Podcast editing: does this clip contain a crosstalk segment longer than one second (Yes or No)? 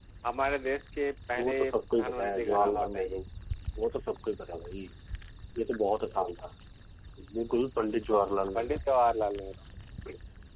Yes